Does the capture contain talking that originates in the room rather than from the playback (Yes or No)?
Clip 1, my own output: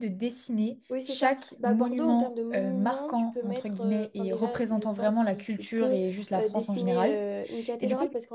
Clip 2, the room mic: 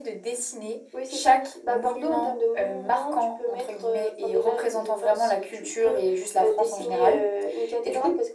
No